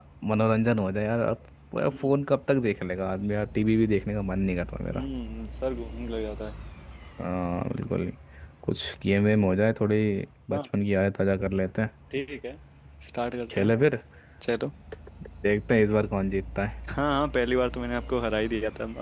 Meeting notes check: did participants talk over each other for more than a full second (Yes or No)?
No